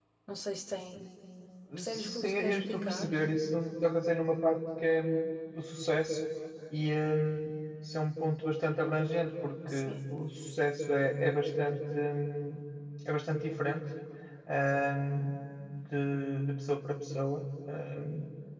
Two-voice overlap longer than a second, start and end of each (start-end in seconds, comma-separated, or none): 1.8-3.1